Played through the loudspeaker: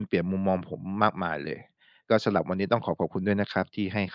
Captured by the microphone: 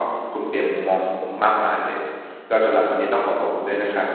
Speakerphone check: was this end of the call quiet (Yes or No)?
Yes